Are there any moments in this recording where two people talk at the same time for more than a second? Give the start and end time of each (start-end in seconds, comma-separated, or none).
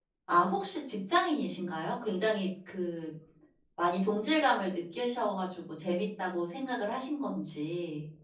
none